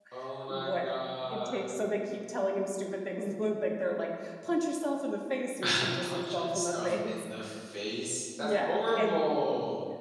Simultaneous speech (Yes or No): Yes